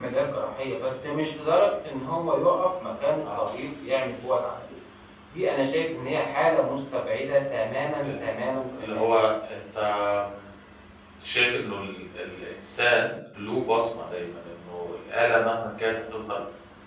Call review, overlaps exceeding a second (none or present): none